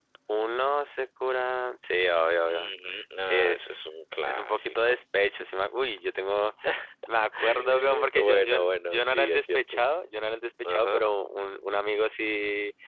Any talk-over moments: Yes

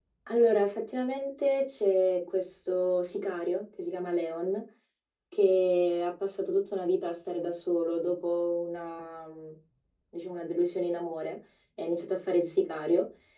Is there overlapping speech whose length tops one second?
No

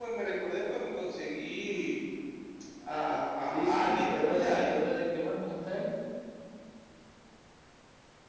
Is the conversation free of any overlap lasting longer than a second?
No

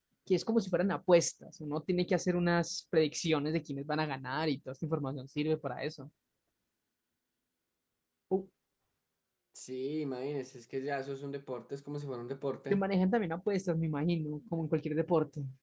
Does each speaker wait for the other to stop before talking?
Yes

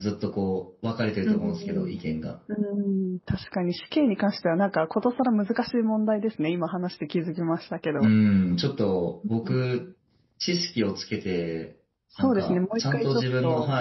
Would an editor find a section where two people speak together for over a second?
Yes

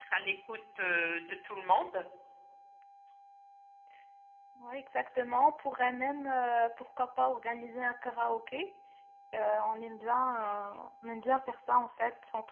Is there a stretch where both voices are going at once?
No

